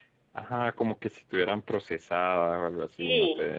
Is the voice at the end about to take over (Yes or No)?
Yes